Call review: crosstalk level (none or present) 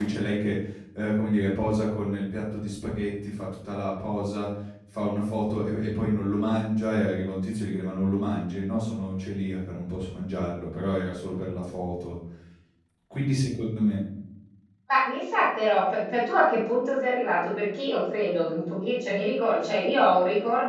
none